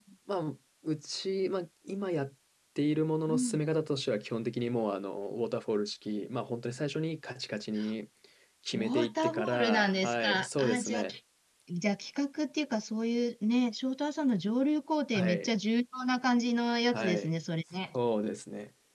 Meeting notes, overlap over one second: present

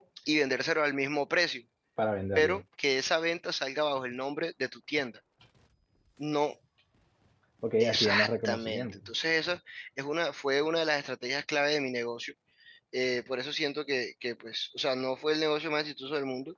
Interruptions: present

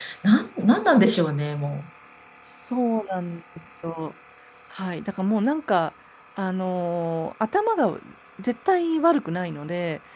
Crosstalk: none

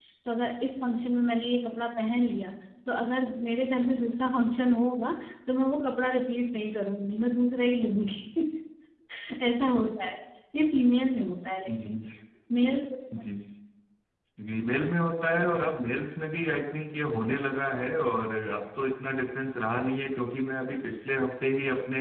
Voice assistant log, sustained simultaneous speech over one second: none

